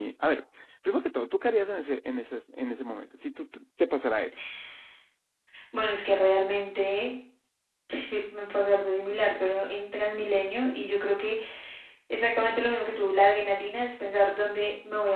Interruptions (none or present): none